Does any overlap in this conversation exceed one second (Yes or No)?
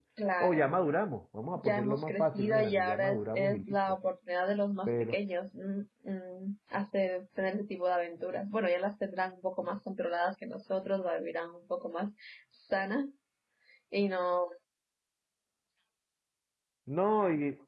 Yes